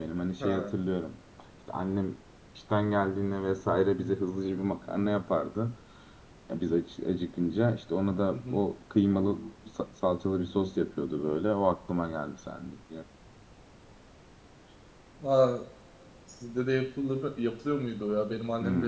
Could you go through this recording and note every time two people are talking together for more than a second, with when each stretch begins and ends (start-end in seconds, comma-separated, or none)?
none